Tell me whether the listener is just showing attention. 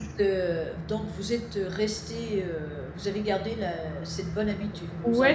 No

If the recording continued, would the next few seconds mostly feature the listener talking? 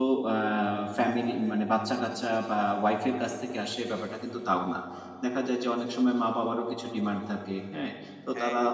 No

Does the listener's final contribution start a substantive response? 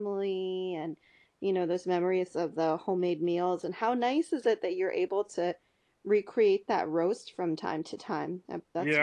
Yes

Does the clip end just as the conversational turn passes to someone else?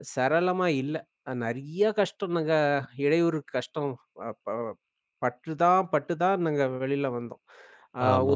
Yes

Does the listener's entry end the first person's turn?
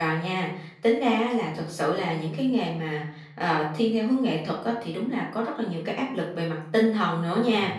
No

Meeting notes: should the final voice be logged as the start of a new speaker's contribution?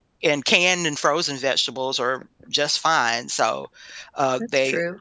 No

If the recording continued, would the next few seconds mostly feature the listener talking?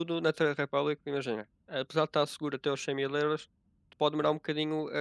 No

